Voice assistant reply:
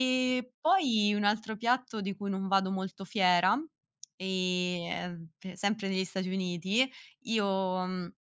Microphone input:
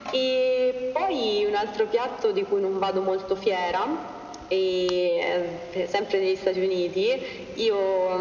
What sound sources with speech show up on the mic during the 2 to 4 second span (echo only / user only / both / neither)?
echo only